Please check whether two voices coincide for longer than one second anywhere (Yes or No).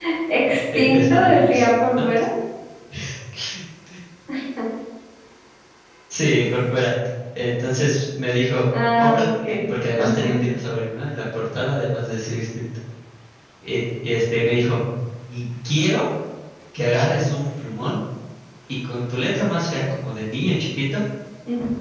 Yes